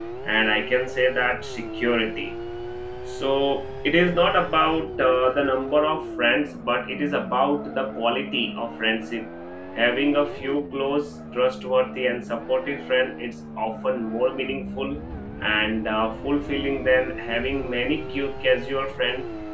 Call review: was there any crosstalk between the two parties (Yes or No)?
No